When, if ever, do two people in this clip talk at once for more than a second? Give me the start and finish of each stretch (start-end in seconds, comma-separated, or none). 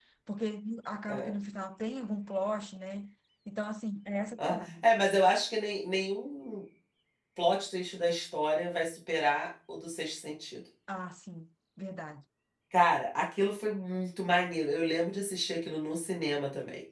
none